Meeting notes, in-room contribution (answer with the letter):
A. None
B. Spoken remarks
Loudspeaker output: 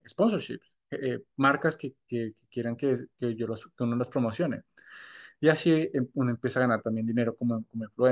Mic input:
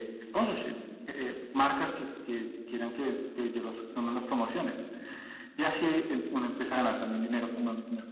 A